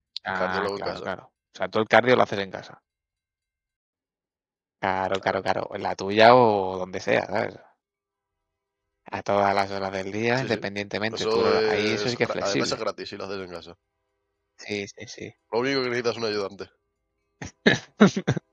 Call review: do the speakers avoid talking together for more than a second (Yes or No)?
No